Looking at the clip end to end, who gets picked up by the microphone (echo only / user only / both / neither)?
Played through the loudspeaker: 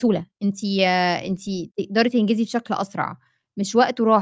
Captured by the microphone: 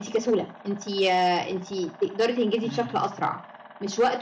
both